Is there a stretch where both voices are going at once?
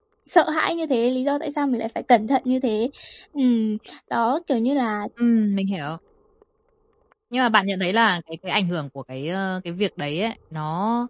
No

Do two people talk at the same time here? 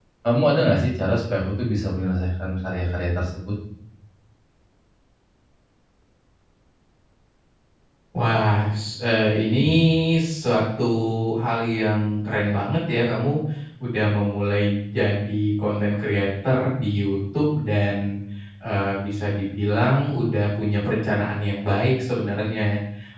No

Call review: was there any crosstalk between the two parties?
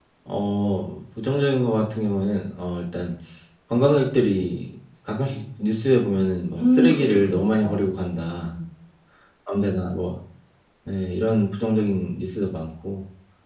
Yes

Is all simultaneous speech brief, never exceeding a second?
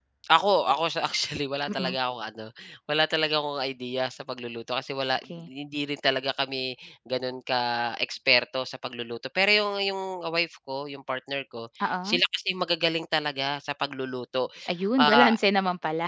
Yes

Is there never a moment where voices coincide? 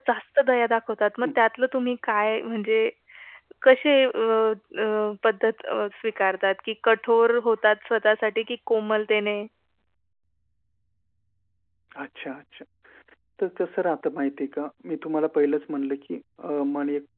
Yes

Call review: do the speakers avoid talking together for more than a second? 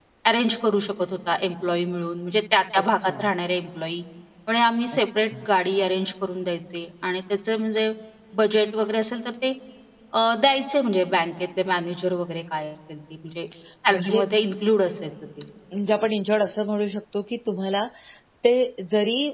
Yes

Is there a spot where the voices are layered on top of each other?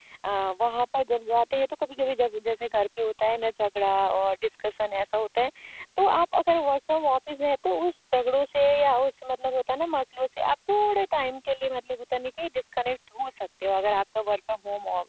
No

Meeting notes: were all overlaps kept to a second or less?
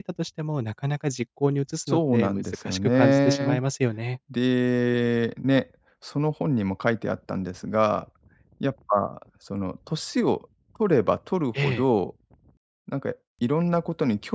No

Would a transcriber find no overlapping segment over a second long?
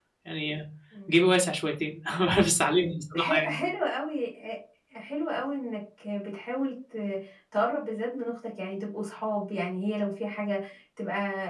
Yes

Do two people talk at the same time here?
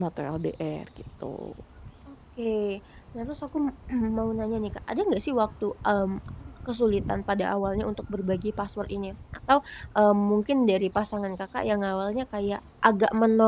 No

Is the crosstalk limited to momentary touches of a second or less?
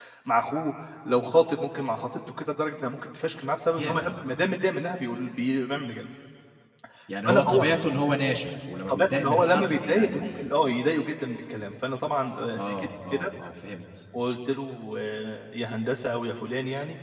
No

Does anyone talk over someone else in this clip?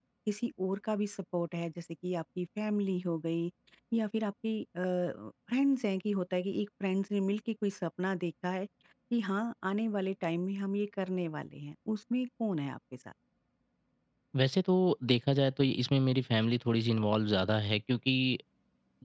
No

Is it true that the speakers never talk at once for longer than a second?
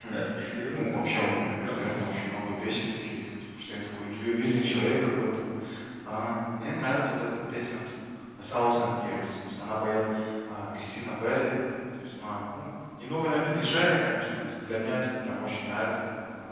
No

